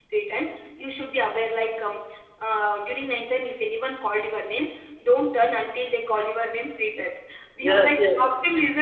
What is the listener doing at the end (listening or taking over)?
listening